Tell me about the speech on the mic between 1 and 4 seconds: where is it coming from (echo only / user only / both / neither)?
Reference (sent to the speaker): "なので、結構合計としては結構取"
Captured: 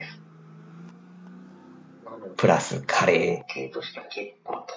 both